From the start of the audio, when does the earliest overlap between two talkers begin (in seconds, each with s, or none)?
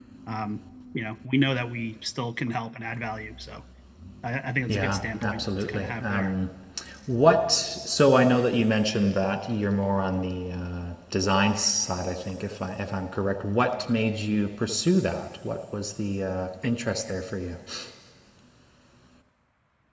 4.7 s